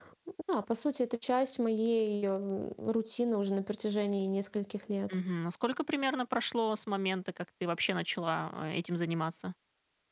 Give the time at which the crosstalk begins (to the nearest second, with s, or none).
none